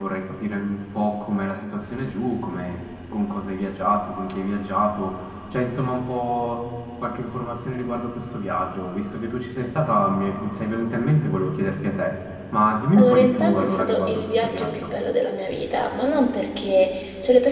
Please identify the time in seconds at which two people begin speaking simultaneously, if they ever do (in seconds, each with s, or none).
13.0 s